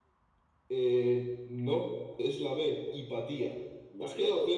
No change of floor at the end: No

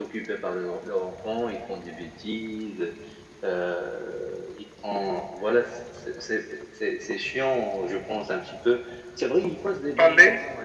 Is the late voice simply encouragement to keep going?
Yes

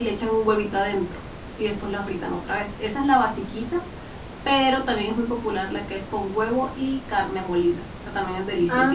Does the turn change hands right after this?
Yes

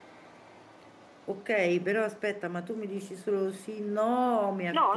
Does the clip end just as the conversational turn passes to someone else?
Yes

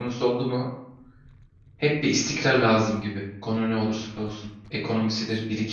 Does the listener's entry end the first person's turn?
No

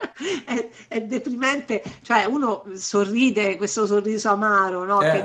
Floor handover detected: No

